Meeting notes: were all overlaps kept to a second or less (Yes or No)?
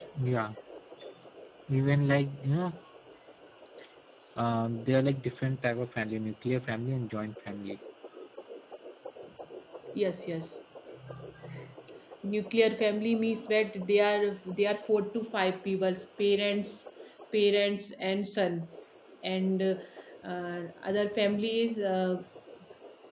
Yes